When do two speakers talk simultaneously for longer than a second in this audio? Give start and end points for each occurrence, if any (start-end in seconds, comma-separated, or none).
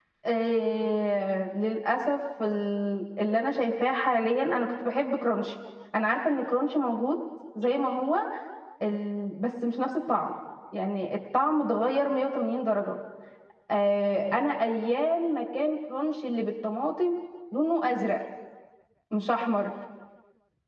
none